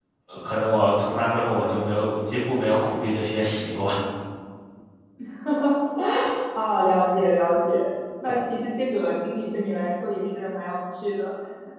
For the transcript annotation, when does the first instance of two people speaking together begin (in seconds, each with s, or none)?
none